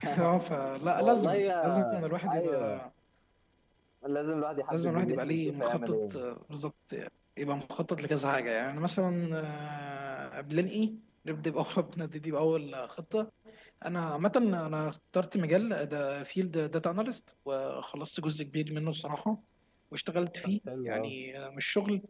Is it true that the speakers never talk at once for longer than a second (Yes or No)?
No